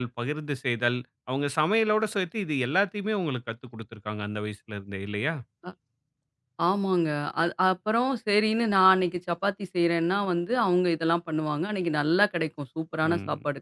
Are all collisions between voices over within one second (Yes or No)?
Yes